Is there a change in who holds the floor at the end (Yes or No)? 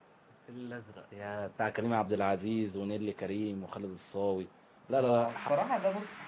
Yes